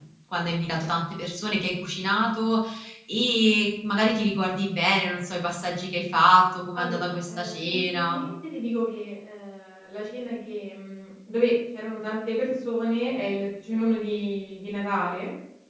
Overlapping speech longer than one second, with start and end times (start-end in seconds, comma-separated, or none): 6.8-8.2